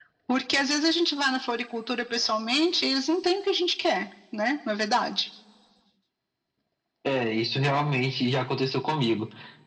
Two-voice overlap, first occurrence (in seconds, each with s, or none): none